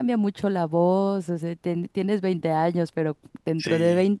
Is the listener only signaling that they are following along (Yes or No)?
Yes